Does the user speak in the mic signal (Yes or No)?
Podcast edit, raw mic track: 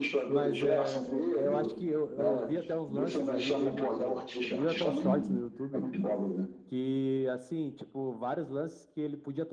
Yes